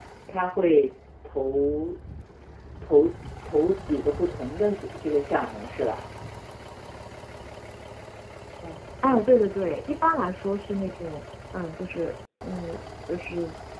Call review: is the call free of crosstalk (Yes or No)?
Yes